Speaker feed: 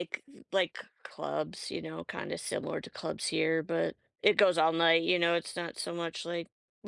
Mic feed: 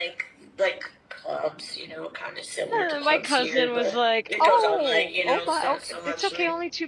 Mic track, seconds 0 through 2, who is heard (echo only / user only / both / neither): echo only